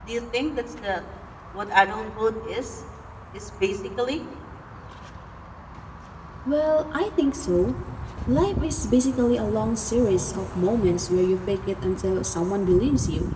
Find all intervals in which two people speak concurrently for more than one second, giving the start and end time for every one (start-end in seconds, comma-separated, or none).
none